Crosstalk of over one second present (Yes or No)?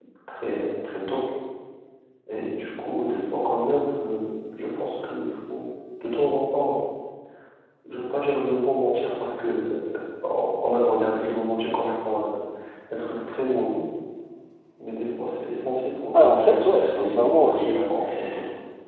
Yes